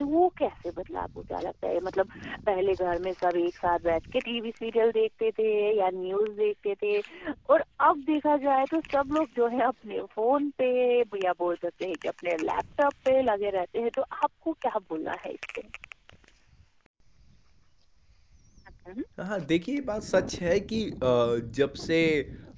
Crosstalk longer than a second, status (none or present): none